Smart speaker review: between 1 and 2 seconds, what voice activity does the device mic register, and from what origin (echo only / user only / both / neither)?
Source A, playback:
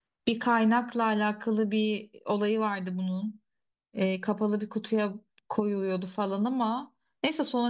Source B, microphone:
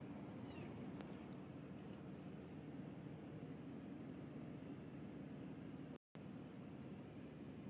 neither